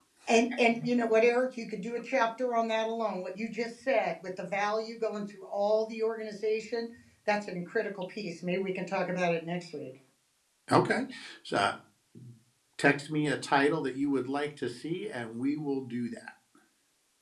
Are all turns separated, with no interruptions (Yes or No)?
Yes